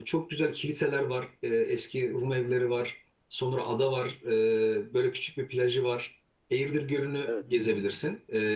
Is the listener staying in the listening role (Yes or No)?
Yes